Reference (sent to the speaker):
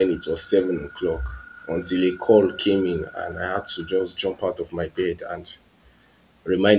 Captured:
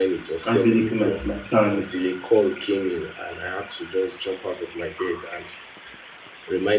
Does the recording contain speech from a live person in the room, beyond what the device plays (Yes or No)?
Yes